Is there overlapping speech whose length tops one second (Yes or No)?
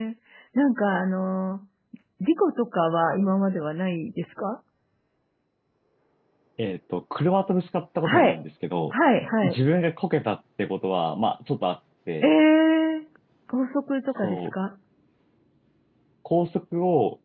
No